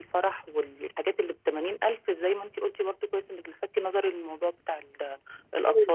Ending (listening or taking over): taking over